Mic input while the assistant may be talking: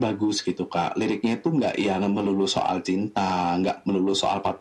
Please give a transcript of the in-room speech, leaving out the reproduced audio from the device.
none

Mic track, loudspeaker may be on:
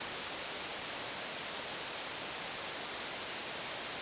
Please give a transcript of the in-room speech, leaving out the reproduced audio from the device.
none

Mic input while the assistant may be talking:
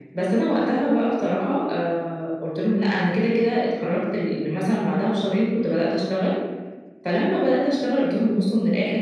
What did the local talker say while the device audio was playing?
none

